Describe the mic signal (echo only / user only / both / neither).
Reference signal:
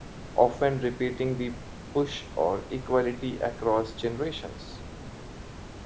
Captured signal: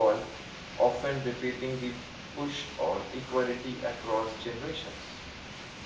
echo only